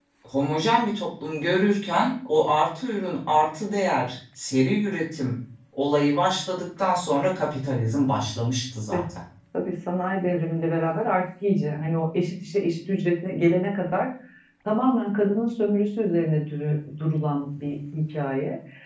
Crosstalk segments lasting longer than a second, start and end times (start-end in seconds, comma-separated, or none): none